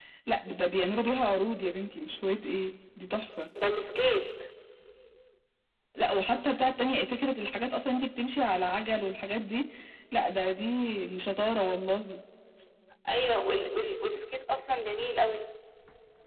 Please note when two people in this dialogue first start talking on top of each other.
none

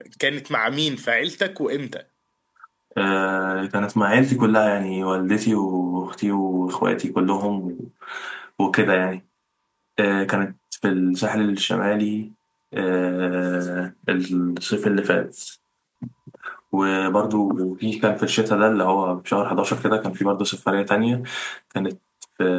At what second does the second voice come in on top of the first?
none

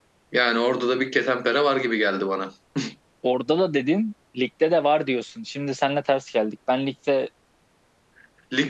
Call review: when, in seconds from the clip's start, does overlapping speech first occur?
none

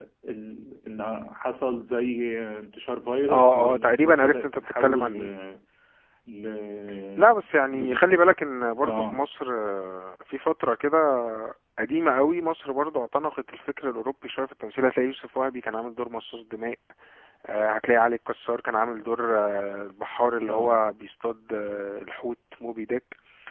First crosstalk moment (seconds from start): 3.3 s

